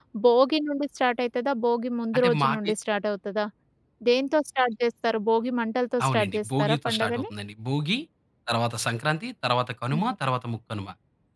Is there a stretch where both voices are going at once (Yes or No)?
Yes